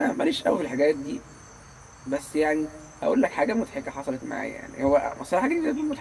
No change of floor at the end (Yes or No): Yes